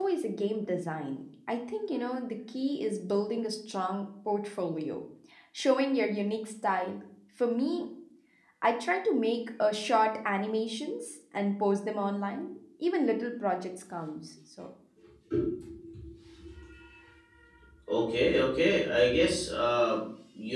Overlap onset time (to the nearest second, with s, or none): none